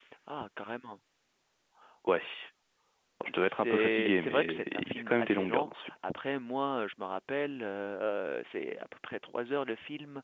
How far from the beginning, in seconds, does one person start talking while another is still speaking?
3.3 s

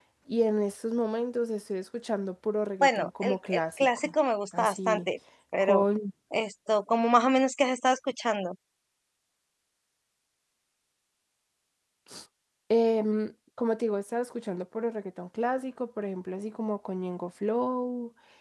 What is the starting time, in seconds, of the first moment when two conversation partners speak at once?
2.8 s

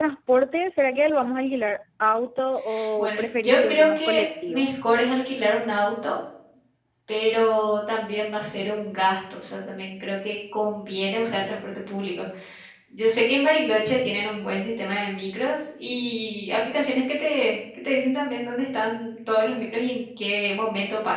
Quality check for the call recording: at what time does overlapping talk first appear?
3.0 s

